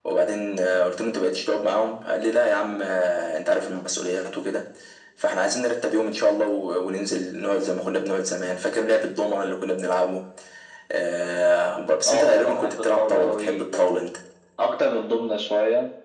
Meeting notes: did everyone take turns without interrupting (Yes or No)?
No